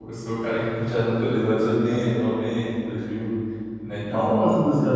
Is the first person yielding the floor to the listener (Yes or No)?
Yes